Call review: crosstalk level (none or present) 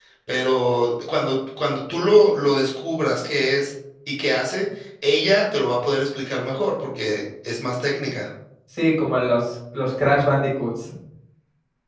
none